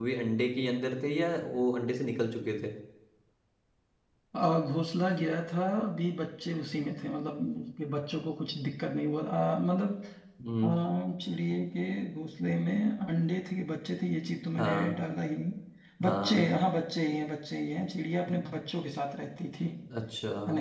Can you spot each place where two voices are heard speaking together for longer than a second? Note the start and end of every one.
none

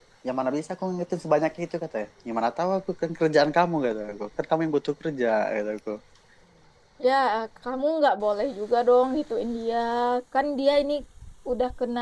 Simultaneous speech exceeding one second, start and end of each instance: none

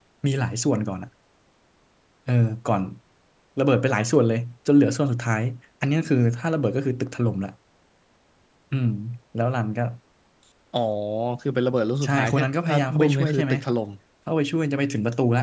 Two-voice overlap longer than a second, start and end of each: 12.0-13.5

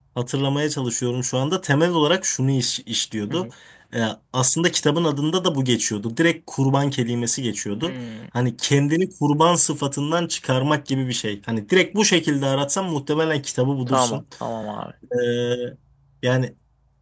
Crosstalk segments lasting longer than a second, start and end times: none

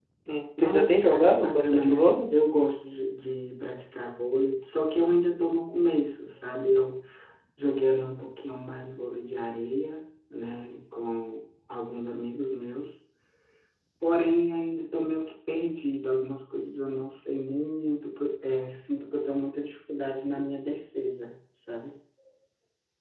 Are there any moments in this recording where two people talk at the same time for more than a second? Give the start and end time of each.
0.6-2.2

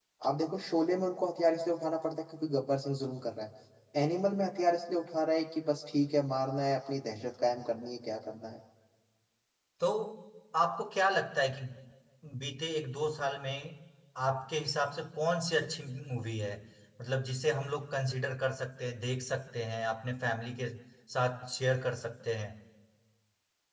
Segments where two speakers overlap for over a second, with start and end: none

